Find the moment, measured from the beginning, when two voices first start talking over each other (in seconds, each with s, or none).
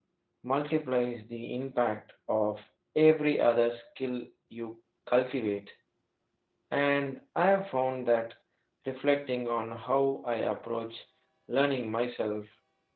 none